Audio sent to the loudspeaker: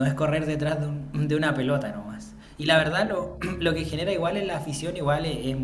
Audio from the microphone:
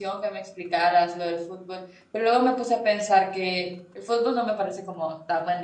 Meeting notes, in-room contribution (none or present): present